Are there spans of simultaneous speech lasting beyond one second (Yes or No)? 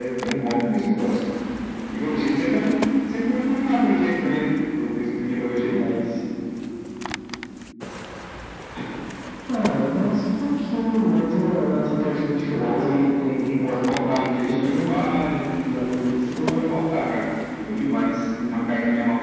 Yes